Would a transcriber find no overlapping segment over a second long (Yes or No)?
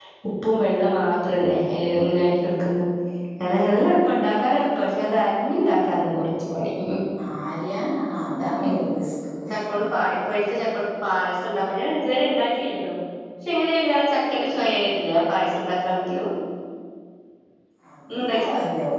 Yes